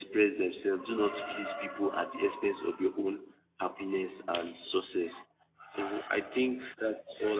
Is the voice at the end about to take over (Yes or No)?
No